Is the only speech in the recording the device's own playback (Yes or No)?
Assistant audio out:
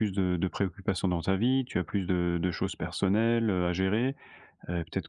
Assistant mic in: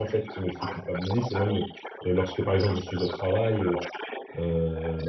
No